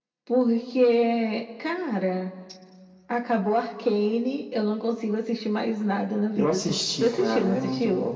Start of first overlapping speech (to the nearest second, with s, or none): 6 s